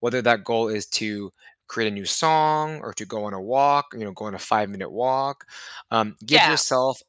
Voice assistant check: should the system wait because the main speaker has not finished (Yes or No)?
Yes